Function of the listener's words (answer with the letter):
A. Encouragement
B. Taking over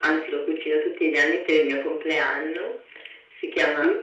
A